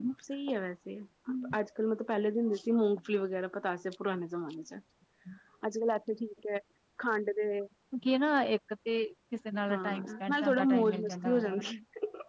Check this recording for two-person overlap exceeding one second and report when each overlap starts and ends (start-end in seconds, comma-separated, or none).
9.7-11.6